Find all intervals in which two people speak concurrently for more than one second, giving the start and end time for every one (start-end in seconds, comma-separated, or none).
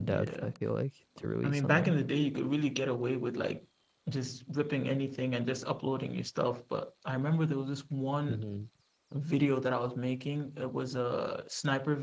none